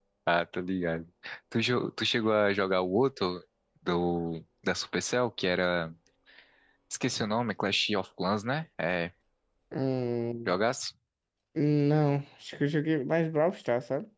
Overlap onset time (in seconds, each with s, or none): none